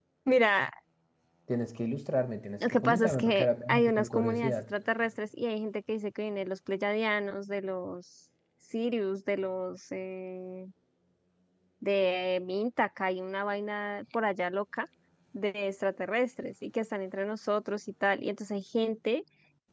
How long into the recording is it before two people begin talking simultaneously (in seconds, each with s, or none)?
2.6 s